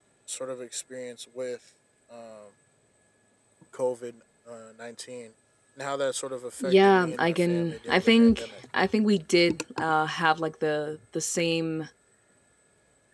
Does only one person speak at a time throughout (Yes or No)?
No